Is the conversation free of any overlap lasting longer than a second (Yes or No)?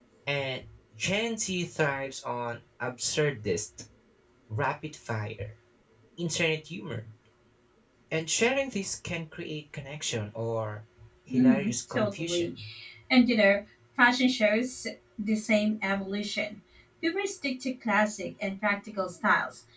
No